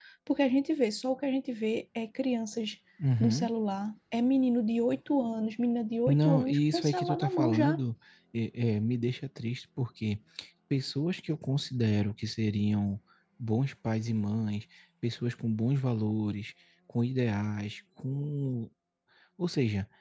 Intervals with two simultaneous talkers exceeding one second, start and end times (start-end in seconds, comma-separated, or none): 6.1-7.8